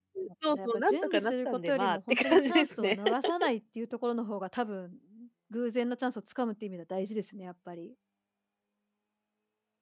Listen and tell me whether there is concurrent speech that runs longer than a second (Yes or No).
Yes